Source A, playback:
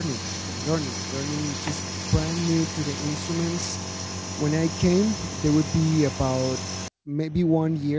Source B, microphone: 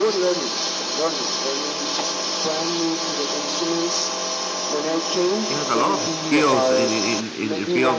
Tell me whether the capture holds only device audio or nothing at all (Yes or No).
No